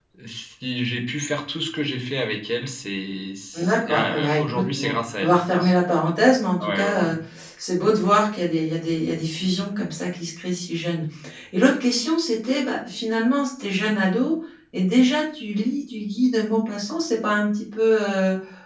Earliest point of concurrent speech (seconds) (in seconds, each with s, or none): 3.5 s